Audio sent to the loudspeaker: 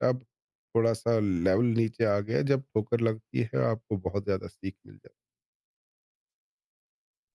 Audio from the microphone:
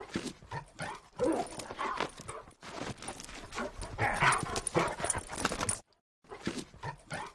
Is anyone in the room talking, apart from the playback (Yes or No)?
No